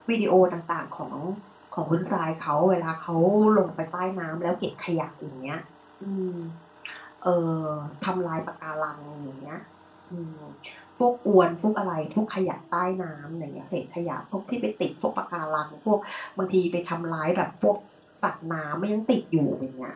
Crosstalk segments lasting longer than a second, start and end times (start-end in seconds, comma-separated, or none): none